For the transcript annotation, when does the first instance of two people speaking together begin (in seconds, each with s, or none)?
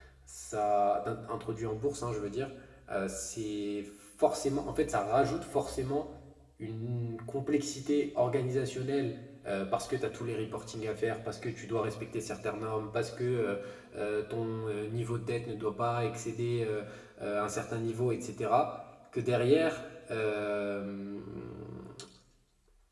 none